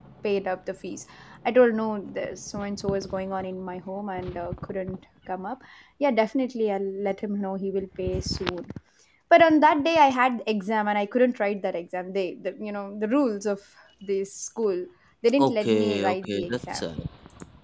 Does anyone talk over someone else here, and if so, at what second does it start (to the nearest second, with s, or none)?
15 s